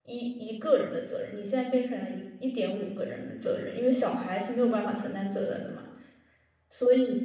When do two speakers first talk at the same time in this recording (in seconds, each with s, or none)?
none